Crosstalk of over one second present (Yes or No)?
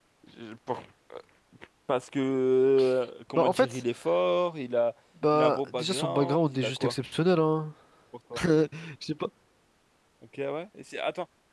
Yes